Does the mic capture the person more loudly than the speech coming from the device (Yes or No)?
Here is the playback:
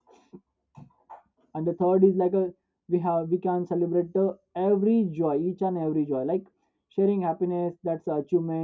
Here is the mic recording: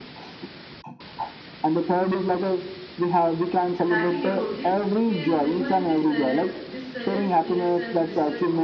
No